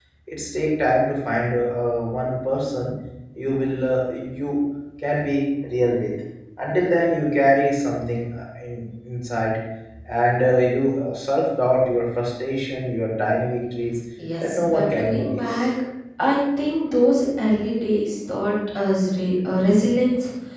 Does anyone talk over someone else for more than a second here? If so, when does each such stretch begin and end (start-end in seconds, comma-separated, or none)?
14.4-15.7